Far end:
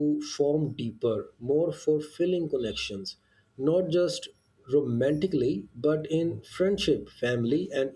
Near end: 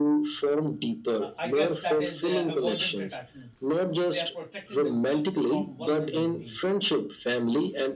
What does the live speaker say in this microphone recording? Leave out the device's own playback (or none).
Uh, I guess that is uh, avoidant attachment. They are protecting themselves from vulnerability.